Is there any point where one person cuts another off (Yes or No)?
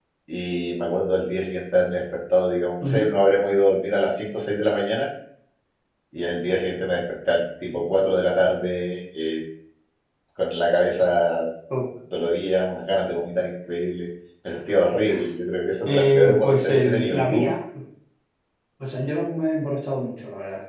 Yes